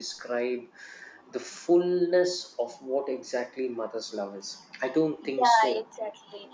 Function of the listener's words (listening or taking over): taking over